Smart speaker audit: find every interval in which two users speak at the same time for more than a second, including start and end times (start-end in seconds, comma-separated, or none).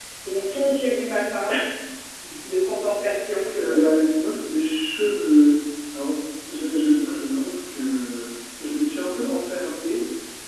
none